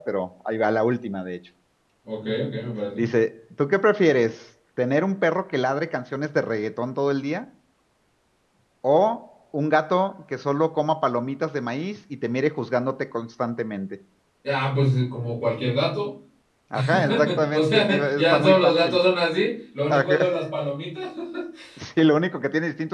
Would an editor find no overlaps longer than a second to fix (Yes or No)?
No